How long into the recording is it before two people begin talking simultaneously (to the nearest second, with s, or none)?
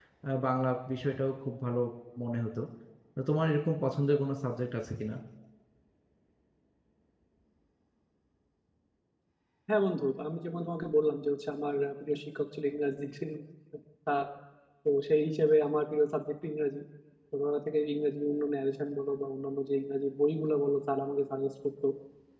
none